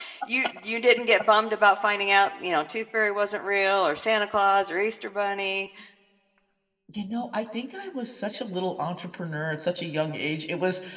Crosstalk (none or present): none